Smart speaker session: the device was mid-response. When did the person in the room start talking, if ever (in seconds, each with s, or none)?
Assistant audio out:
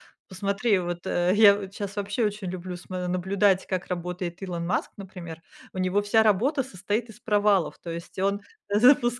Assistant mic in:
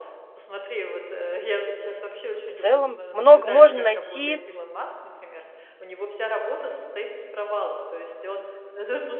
2.5 s